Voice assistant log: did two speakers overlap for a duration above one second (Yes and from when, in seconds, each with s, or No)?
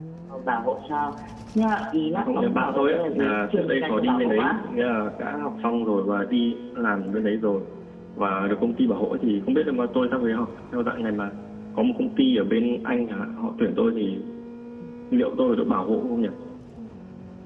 Yes, from 2.1 s